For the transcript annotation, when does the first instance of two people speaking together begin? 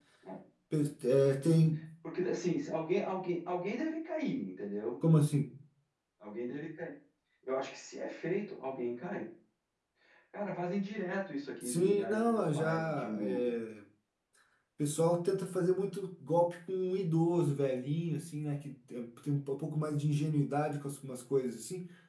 11.6 s

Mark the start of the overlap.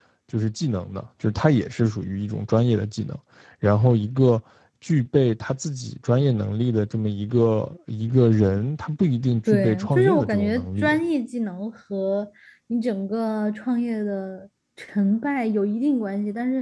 9.5 s

